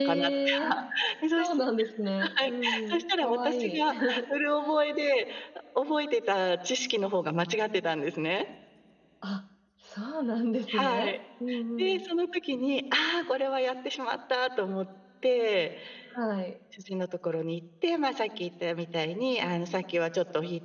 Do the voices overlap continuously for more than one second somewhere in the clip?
Yes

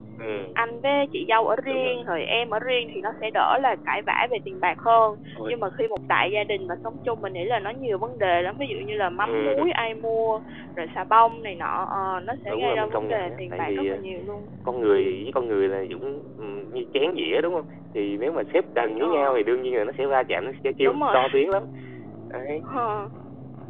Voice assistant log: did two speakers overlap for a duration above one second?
Yes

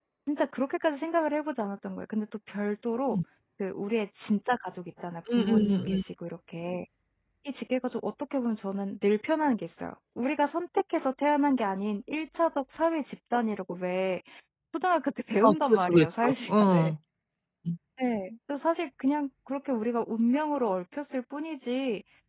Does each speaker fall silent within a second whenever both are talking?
No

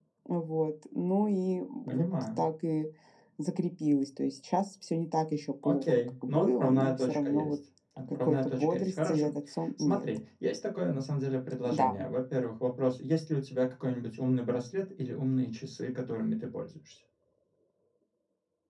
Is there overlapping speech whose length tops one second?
Yes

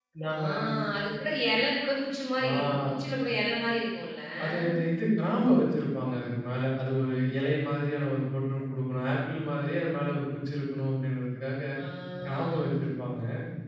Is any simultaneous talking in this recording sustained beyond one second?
No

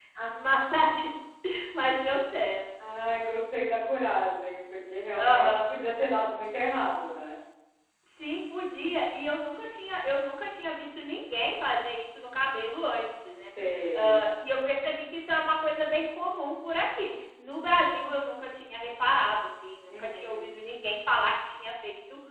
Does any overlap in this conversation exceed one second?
No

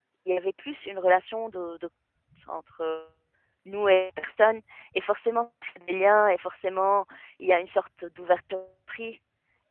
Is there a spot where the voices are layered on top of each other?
No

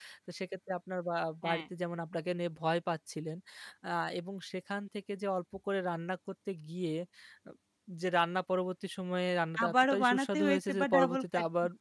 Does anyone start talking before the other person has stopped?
Yes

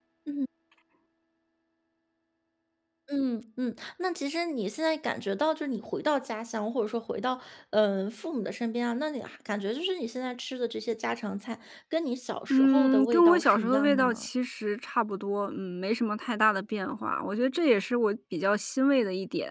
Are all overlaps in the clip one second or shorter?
No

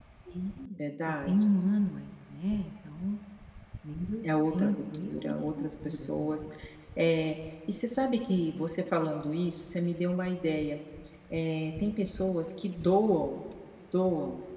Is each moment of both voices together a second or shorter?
No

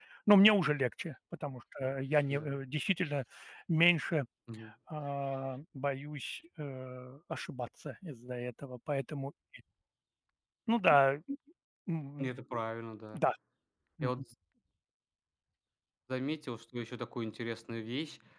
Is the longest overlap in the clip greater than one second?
No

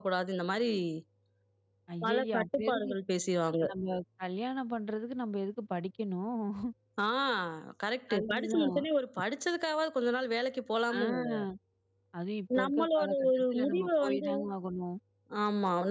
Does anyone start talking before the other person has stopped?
Yes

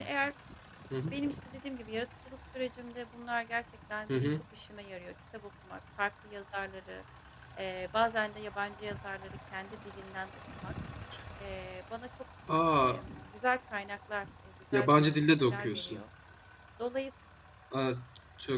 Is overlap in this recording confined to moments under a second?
No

